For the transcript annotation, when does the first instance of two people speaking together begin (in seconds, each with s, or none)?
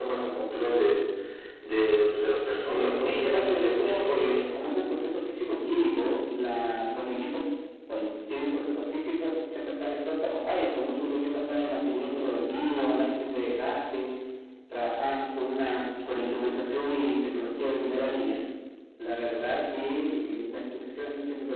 2.7 s